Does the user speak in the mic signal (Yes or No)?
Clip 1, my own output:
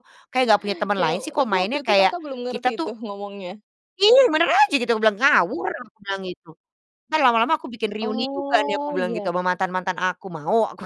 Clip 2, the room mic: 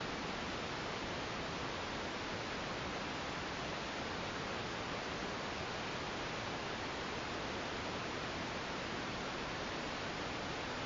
No